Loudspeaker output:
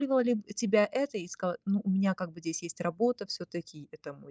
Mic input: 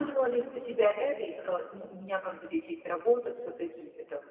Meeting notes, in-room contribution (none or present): none